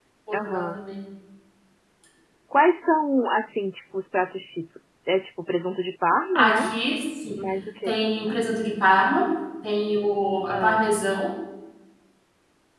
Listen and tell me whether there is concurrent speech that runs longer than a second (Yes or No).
No